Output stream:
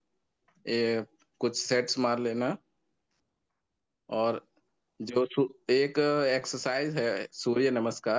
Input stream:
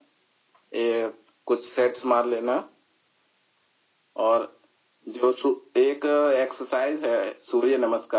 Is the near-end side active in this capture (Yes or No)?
No